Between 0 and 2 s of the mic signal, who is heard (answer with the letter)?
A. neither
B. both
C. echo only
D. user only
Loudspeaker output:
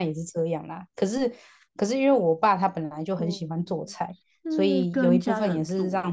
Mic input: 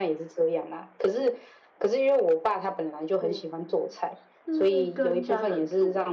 C